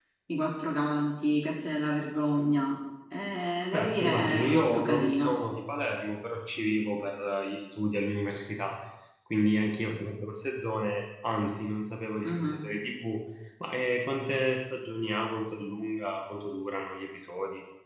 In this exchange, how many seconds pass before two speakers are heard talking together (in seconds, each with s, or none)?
3.7 s